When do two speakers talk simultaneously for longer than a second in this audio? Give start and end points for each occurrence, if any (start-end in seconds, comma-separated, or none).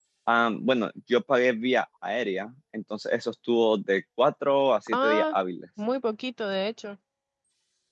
none